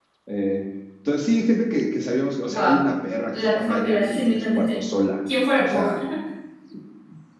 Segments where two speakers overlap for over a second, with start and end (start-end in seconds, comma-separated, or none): 3.3-4.8